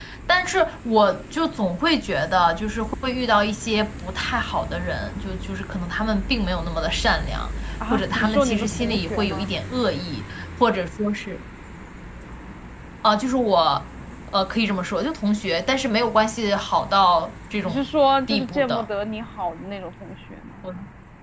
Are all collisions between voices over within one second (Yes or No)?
No